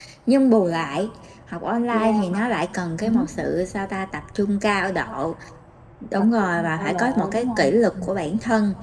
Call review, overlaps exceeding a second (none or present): present